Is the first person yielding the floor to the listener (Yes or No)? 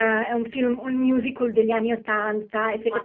No